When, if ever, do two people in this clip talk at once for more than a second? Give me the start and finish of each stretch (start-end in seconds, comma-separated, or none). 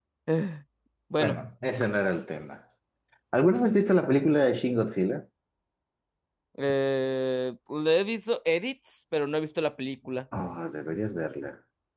none